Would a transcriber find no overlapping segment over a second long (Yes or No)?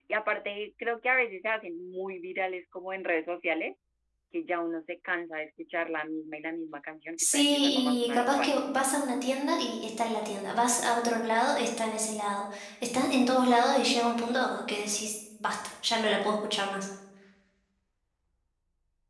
No